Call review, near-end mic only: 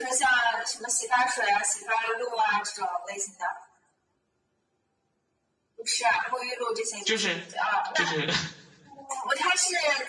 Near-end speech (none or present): present